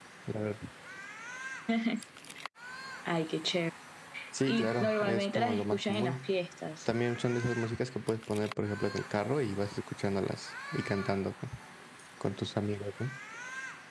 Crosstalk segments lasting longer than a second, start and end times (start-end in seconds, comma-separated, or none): 4.5-6.3